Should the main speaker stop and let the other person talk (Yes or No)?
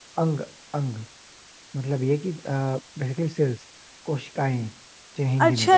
Yes